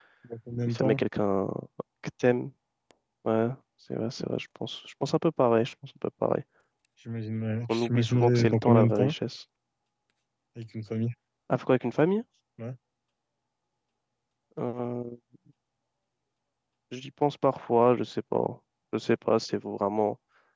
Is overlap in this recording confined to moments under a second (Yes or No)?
No